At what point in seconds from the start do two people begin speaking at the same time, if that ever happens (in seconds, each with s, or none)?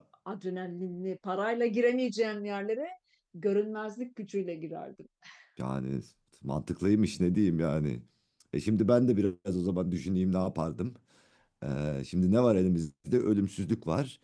none